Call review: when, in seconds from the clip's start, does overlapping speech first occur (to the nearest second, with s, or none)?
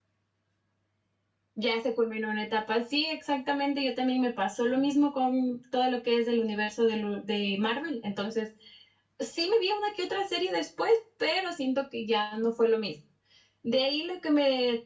none